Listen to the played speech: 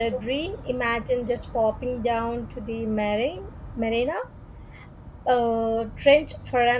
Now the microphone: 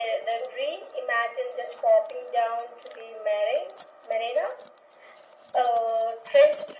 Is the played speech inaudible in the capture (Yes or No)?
No